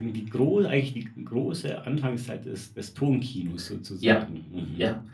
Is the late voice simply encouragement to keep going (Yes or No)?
No